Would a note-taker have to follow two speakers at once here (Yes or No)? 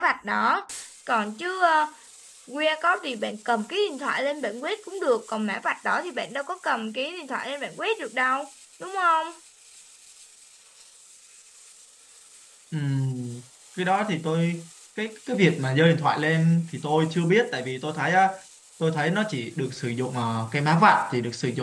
No